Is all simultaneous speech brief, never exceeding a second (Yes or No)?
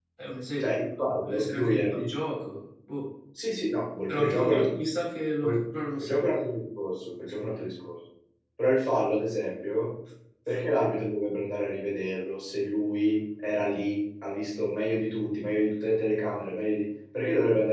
No